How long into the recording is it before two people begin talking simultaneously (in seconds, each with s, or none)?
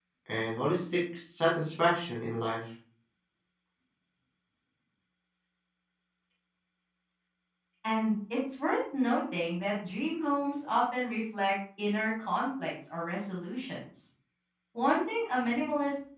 none